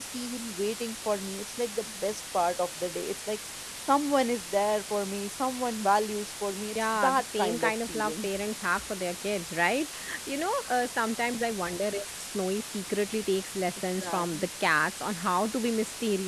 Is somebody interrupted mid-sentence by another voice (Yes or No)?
Yes